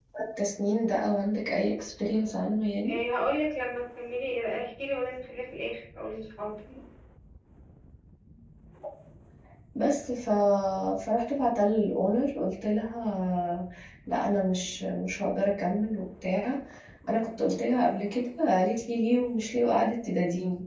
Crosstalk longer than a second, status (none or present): none